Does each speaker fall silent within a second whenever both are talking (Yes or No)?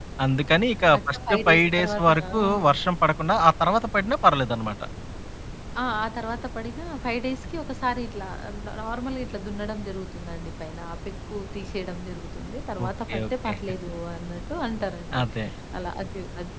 No